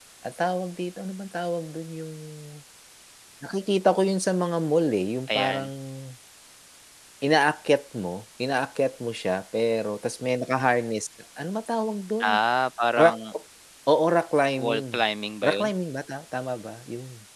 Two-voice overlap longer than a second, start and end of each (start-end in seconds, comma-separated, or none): none